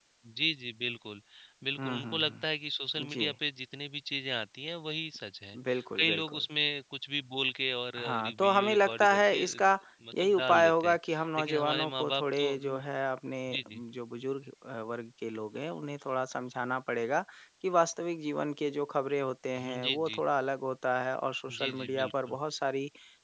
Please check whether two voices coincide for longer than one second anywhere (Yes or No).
Yes